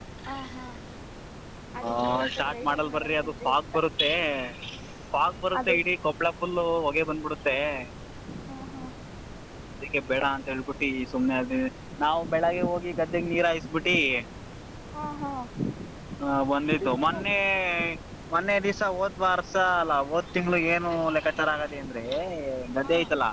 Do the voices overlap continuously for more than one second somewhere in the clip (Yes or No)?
Yes